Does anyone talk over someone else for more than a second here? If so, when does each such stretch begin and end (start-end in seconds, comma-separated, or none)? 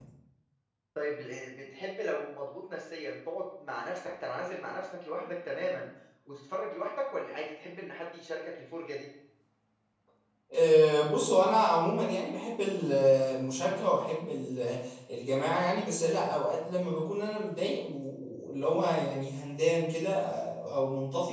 none